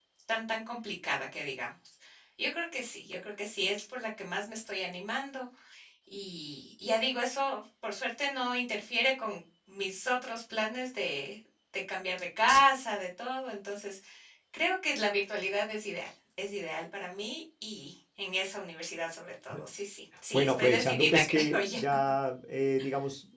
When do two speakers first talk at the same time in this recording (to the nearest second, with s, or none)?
20 s